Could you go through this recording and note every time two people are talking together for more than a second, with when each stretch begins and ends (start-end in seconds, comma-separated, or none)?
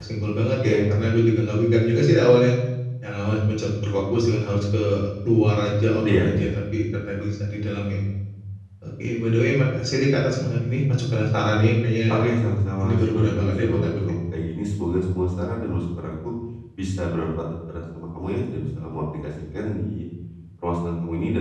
12.8-14.1